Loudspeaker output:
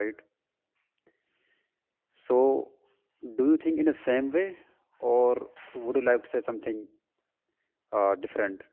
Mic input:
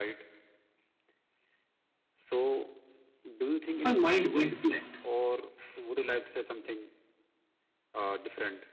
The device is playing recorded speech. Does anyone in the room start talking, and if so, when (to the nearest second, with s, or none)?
4 s